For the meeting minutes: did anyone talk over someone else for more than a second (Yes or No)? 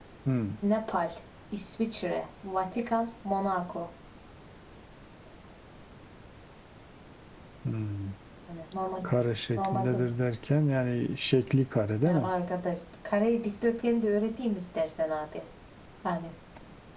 No